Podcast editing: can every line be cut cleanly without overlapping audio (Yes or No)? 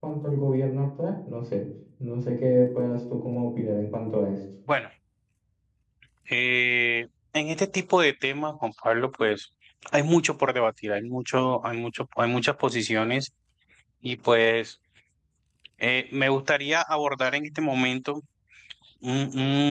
Yes